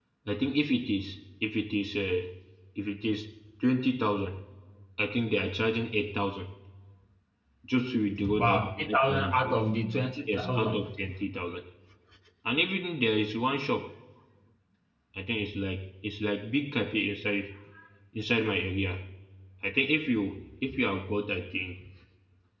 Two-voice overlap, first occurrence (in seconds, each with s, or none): 8.4 s